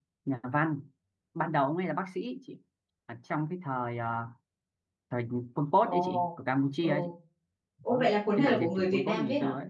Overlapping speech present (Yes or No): Yes